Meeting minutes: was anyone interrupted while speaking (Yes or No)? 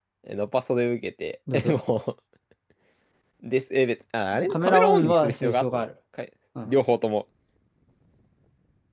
Yes